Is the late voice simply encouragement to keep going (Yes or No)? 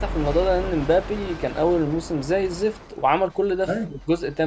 Yes